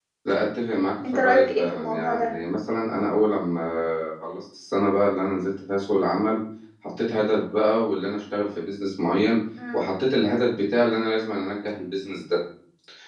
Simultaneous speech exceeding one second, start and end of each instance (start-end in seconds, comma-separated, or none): 1.1-2.3